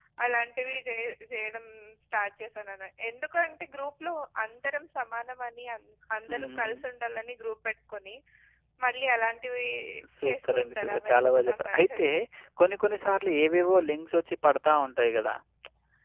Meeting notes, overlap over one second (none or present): present